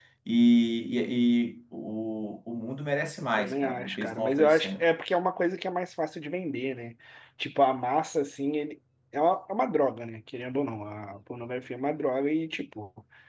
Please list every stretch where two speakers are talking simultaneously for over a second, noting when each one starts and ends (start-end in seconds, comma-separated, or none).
3.4-4.8